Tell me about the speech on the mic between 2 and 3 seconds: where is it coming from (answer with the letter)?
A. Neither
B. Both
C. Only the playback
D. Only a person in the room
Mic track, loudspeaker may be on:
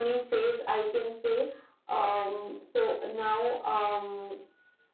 C